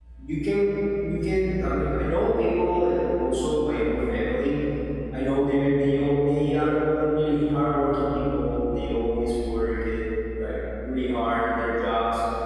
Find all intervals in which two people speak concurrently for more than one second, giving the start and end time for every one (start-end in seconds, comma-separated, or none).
none